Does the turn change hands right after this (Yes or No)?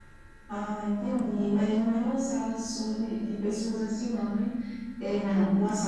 No